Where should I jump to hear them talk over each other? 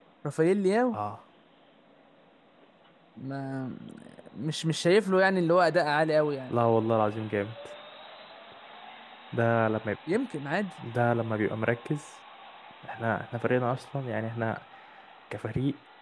none

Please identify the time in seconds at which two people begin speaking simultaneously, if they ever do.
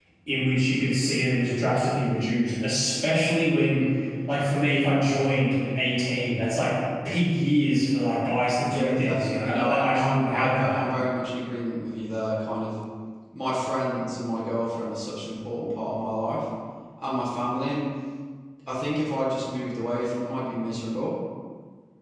8.7 s

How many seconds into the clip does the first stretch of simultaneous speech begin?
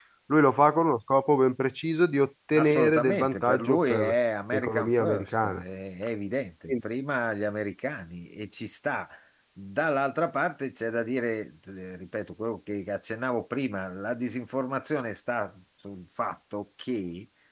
2.5 s

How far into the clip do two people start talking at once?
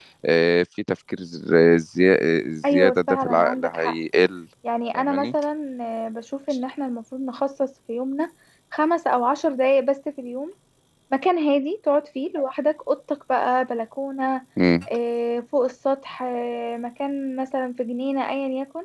2.7 s

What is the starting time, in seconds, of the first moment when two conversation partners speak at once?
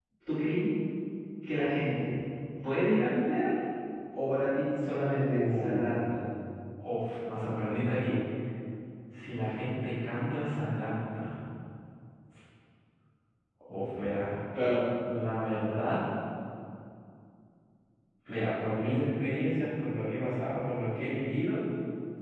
4.8 s

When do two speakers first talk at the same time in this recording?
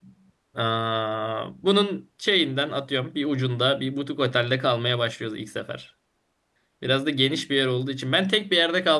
none

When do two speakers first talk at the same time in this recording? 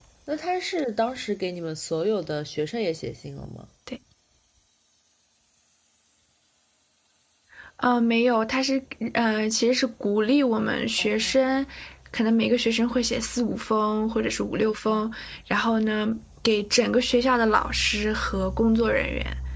none

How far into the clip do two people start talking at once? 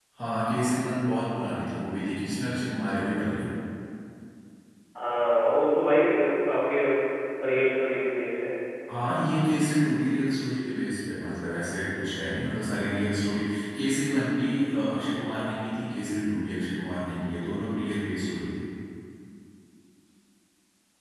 none

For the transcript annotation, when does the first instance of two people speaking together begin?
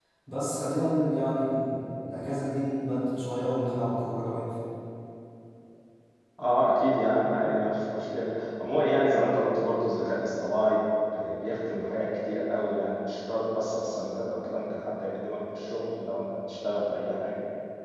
none

